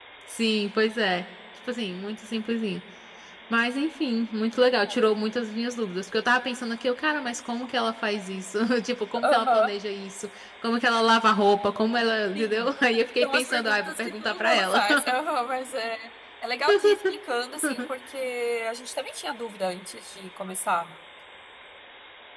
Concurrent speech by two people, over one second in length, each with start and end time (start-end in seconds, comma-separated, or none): 13.2-14.8